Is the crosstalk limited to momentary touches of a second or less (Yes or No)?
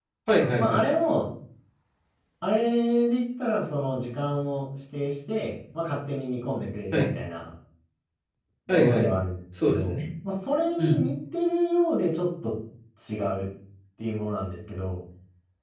Yes